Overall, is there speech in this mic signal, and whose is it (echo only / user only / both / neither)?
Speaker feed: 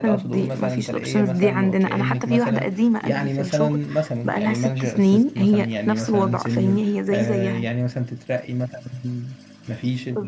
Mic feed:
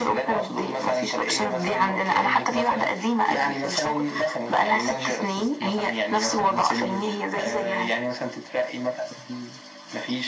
echo only